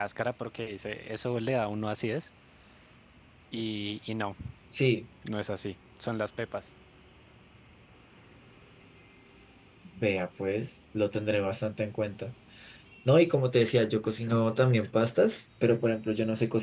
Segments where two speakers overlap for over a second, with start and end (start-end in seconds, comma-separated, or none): none